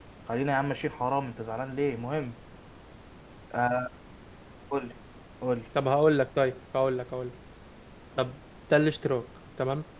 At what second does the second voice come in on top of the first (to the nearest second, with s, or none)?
none